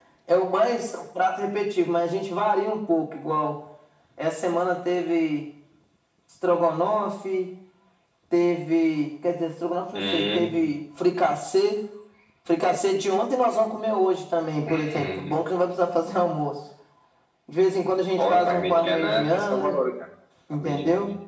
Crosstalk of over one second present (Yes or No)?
Yes